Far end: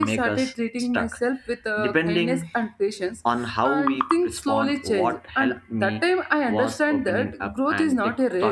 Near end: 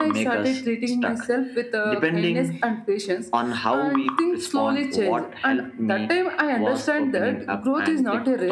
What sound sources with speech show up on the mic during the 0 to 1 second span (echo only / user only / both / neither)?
echo only